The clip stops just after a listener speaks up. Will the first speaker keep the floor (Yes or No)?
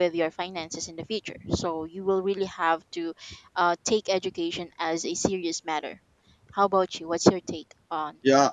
No